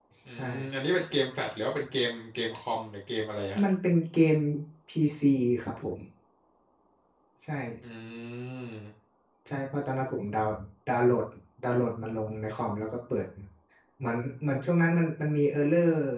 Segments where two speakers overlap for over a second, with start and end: none

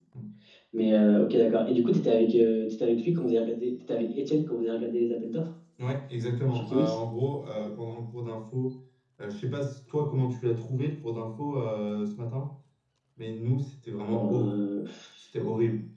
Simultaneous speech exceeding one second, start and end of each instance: none

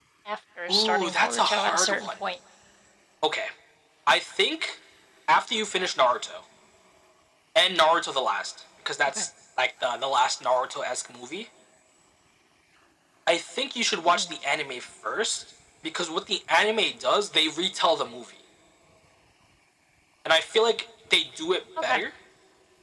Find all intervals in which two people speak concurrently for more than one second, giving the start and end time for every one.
0.7-2.2

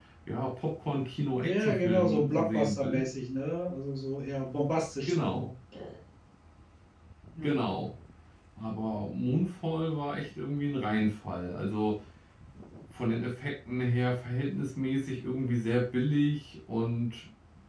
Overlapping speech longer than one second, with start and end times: 1.4-3.0

